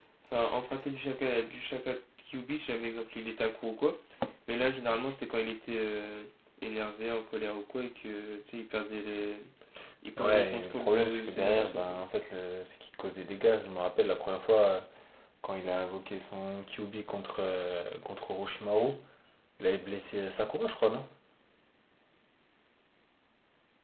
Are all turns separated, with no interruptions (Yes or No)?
No